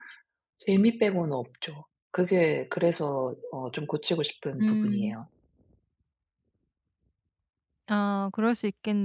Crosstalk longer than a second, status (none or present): none